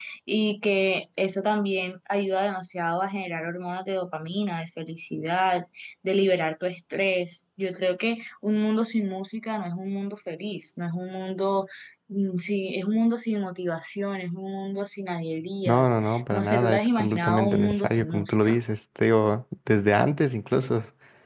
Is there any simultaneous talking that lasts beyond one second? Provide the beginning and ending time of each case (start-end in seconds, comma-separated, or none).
15.7-18.6